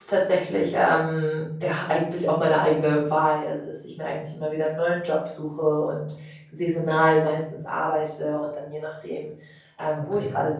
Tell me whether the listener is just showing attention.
Yes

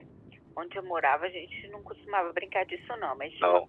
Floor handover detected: No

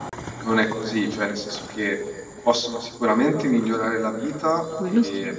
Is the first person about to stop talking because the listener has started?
No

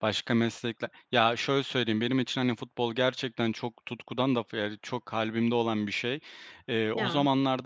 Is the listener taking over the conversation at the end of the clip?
No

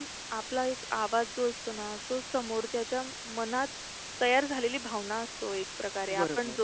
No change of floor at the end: Yes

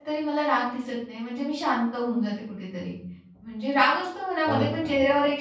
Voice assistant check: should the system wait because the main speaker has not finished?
Yes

